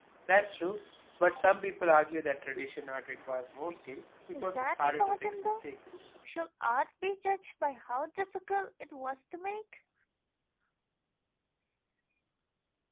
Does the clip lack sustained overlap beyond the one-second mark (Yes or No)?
No